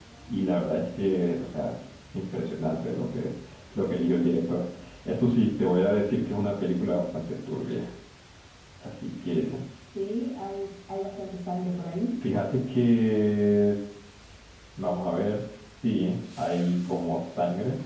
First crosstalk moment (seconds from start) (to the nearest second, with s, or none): none